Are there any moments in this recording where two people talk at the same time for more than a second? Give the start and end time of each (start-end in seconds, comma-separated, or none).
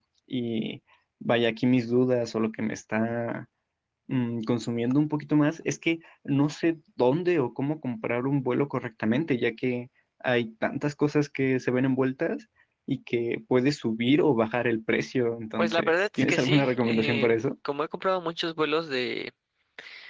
15.6-17.4